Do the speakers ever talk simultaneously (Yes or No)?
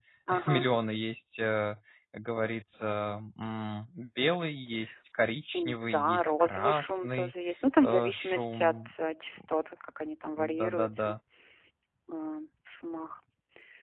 Yes